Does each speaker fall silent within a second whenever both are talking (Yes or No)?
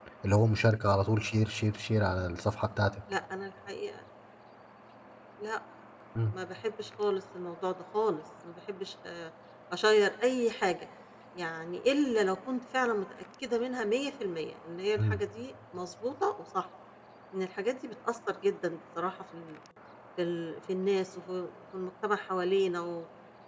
Yes